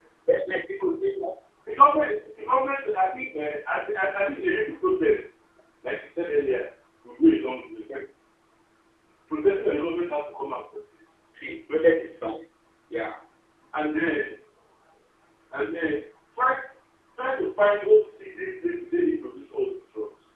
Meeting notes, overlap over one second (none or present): none